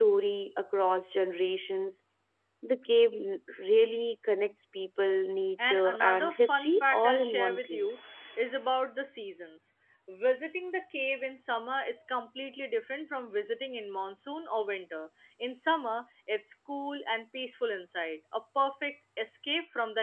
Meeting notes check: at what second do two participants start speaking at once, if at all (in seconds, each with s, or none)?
5.6 s